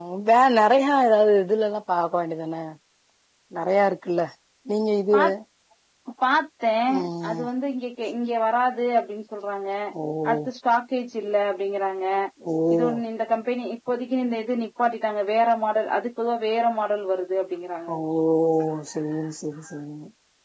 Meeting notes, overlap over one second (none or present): none